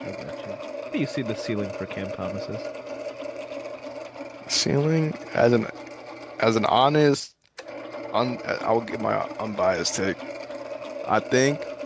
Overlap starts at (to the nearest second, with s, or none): none